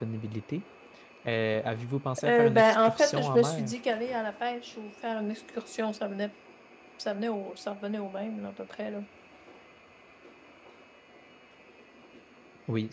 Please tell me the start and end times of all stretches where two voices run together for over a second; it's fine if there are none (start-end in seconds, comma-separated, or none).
2.2-3.7